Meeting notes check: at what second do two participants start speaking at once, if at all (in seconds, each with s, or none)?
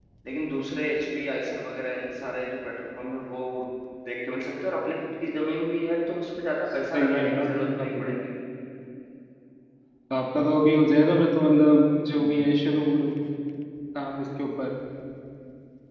6.9 s